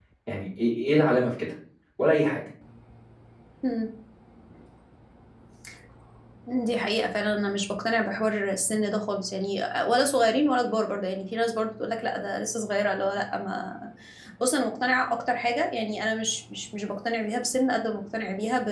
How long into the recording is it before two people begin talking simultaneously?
none

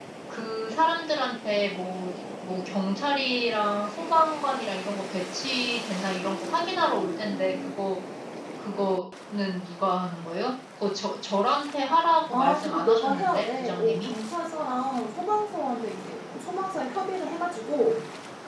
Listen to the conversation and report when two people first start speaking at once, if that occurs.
12 s

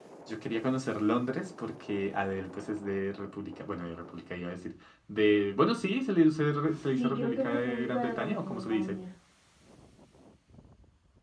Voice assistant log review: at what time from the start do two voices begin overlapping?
7 s

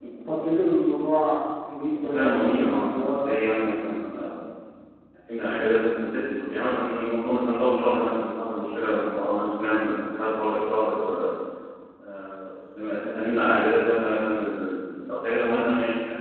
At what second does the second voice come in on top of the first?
2 s

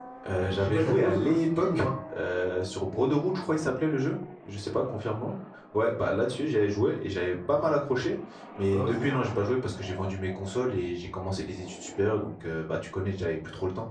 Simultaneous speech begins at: 1 s

